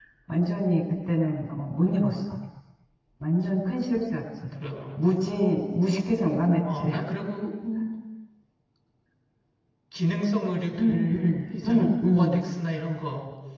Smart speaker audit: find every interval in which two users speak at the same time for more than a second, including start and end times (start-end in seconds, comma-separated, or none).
10.8-12.4